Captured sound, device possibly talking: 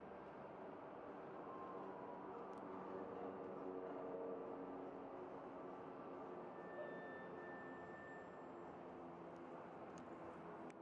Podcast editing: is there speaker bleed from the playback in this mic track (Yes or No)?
No